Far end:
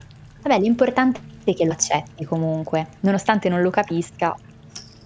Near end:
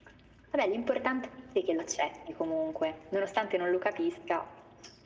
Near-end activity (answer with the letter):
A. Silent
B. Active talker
A